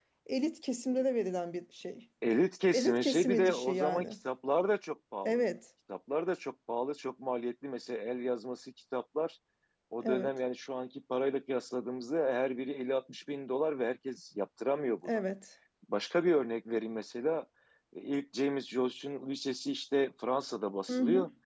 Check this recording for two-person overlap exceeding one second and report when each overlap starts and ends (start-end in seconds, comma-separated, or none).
2.7-4.0